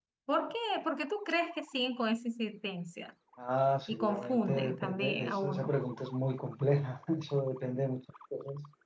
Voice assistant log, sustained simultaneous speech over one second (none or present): present